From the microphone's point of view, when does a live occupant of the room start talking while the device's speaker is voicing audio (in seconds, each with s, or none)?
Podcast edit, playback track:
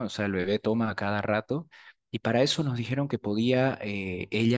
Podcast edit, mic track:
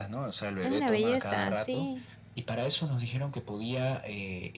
0.6 s